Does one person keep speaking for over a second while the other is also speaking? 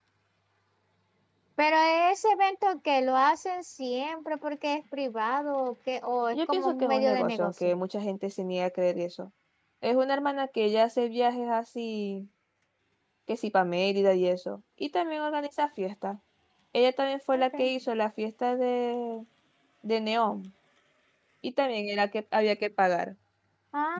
Yes, from 6.3 s

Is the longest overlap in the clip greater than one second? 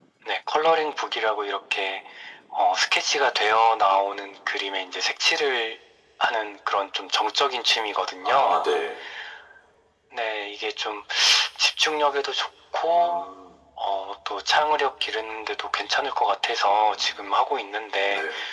No

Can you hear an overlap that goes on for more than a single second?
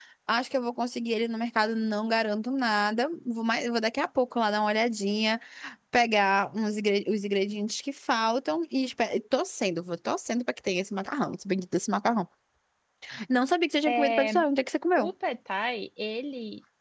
No

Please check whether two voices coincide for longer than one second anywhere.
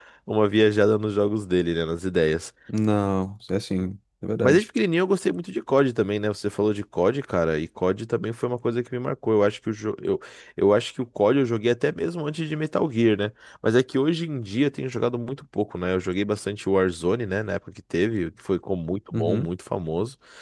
No

